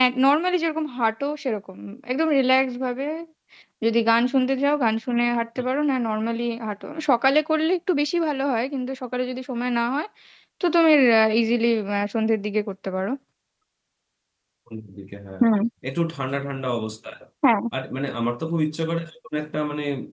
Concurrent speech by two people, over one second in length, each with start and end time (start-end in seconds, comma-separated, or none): none